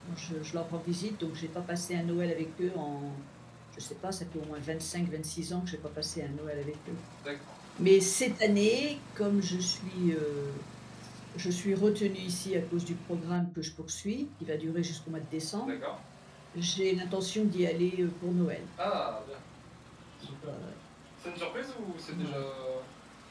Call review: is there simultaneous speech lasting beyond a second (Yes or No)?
No